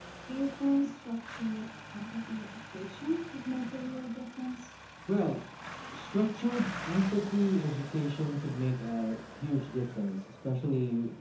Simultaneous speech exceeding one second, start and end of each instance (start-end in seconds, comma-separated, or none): none